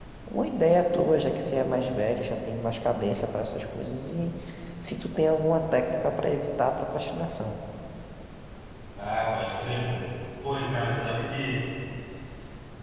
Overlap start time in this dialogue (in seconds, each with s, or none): none